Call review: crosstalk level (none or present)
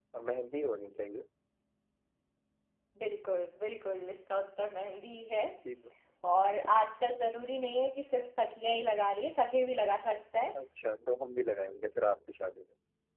none